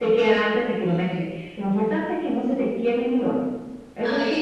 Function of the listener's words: taking over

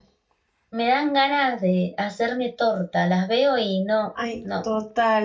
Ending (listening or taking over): taking over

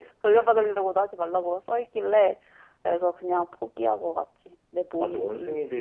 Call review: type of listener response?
taking over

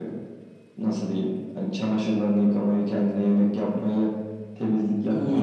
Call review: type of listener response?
taking over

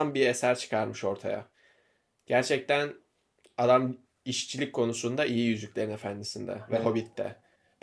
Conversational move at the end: listening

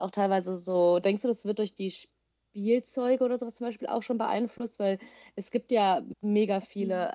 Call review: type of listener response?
listening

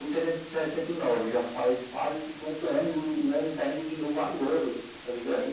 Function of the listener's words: taking over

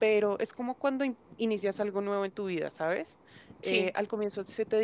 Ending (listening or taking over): listening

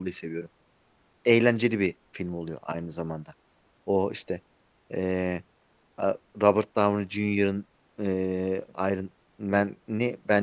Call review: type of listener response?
listening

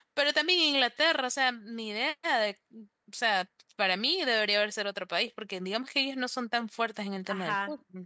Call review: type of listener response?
taking over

